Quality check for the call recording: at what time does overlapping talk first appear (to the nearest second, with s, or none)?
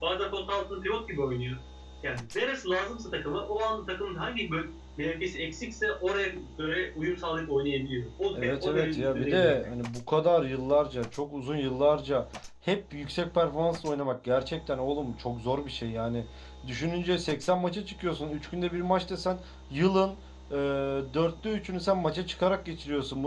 8 s